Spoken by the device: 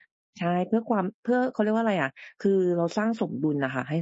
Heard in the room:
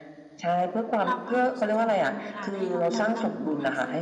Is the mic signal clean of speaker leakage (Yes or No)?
No